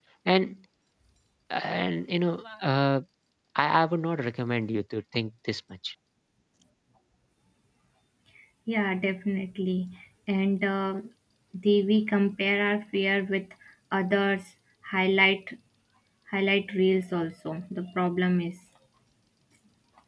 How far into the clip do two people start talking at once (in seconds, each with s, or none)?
none